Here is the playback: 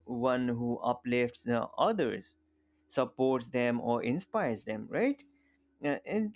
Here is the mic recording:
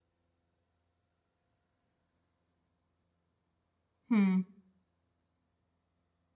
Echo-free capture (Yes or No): Yes